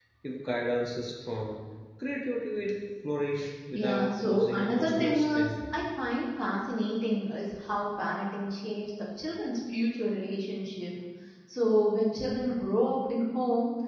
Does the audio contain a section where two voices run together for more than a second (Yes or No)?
Yes